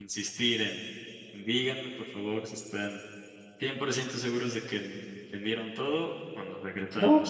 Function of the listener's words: taking over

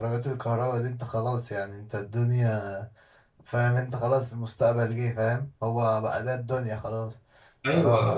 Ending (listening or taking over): taking over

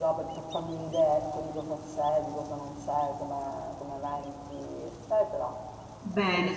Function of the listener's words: taking over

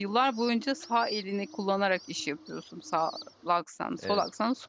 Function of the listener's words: listening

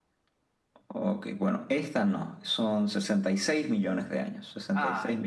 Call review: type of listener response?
listening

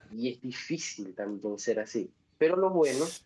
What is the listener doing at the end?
listening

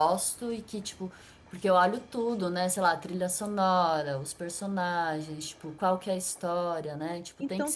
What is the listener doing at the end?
taking over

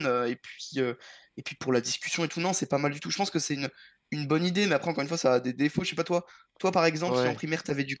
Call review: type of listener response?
listening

